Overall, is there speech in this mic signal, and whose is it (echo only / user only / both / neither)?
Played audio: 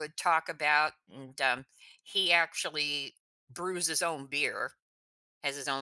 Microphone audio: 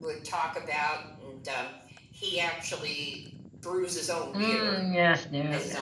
both